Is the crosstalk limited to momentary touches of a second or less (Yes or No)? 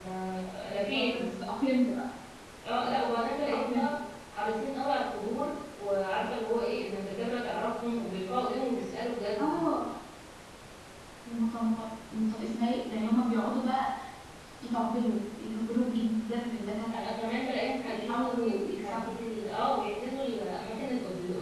No